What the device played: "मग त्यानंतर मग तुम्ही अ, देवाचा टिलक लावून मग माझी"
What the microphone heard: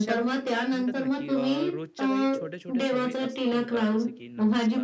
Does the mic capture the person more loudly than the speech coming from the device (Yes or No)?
No